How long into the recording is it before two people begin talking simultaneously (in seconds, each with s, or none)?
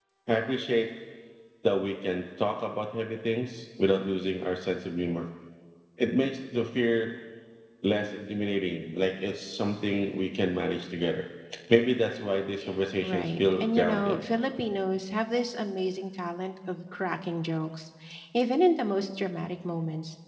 13.0 s